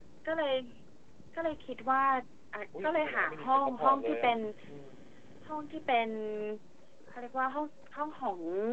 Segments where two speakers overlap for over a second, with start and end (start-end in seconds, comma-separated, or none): 2.8-4.3